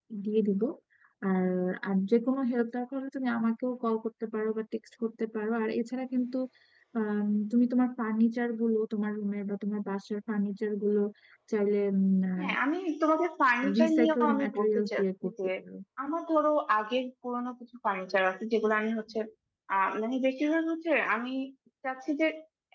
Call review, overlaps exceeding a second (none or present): present